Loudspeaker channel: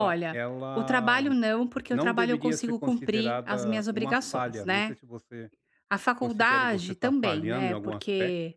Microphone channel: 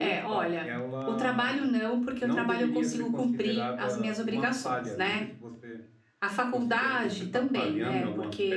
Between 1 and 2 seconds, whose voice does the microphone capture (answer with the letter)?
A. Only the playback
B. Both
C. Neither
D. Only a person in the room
A